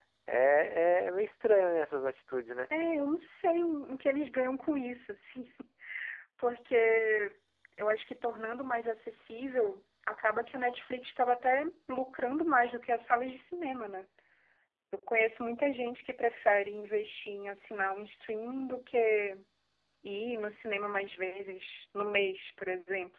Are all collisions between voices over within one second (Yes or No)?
Yes